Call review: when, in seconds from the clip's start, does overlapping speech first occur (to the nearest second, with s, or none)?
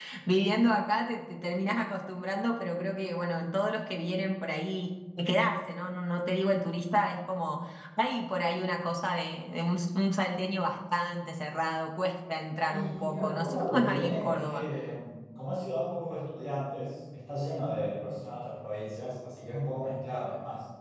13 s